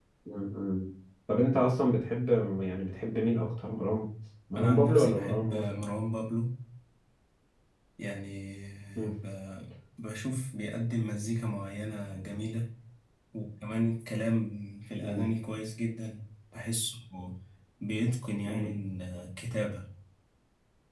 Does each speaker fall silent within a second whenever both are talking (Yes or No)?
No